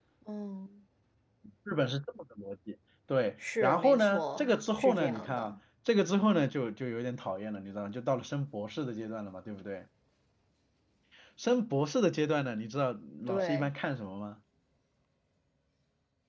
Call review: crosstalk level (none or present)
present